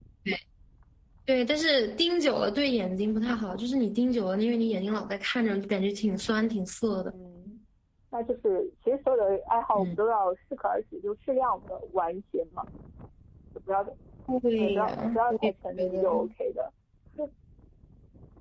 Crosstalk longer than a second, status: present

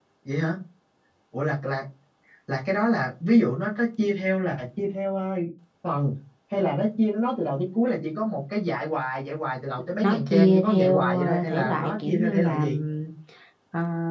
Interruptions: present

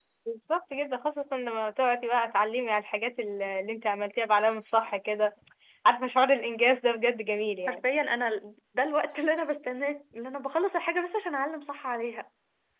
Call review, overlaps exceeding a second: none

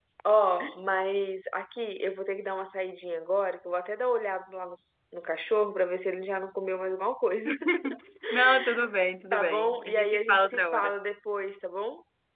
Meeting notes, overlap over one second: present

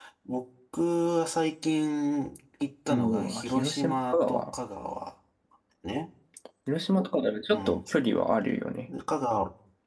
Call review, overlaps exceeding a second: present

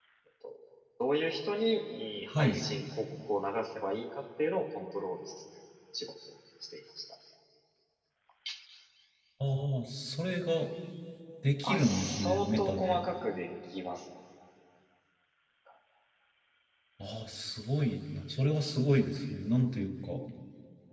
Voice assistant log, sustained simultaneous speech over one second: present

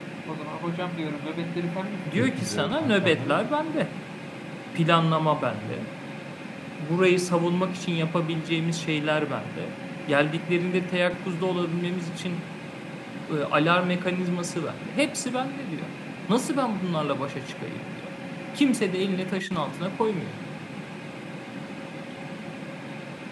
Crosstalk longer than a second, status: present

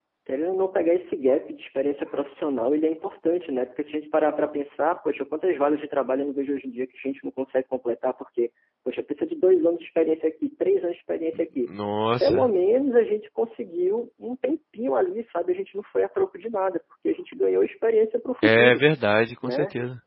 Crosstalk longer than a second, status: none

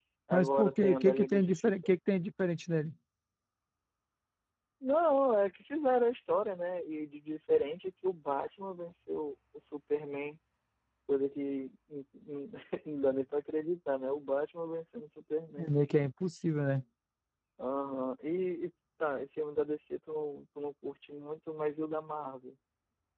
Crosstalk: present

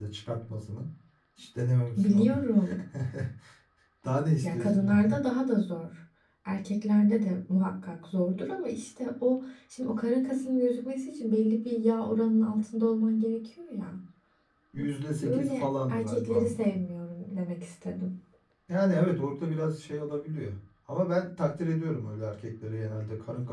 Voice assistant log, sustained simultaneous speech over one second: present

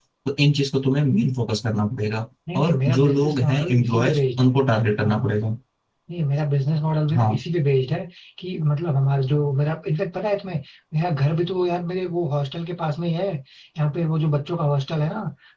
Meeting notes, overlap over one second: present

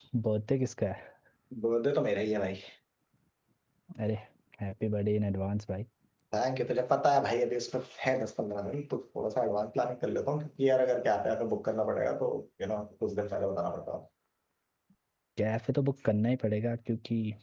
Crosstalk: none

